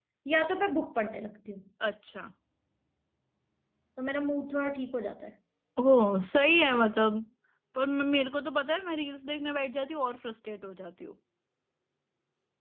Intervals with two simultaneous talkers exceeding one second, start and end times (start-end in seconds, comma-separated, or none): none